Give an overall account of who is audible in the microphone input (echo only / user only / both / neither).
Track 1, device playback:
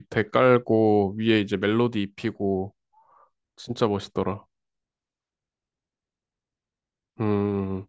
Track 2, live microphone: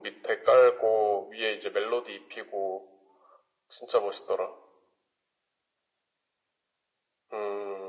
echo only